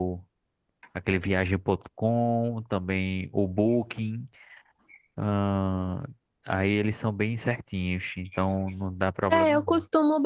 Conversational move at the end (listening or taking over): taking over